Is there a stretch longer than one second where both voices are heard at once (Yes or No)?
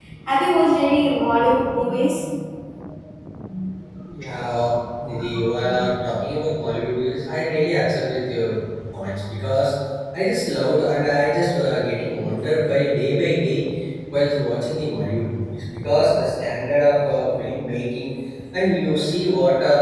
No